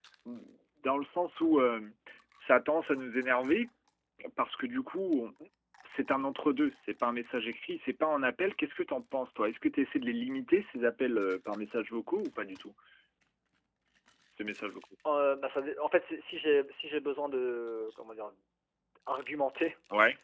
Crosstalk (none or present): none